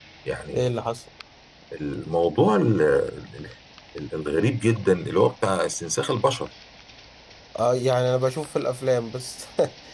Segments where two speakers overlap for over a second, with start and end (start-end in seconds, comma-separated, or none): none